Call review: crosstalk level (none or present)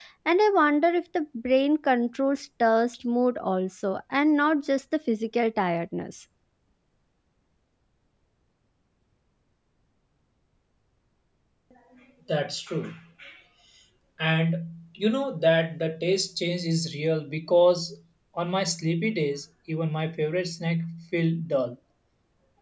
none